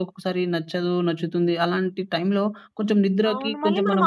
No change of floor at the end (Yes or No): No